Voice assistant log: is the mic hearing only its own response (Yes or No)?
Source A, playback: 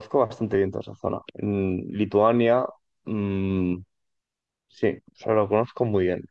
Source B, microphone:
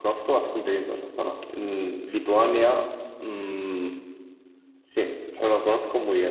Yes